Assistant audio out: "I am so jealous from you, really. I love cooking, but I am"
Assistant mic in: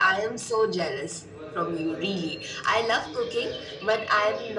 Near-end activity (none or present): present